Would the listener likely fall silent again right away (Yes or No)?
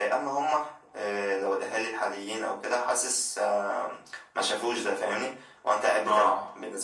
Yes